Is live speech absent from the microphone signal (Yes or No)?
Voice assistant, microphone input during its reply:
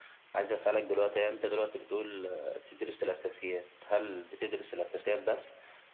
Yes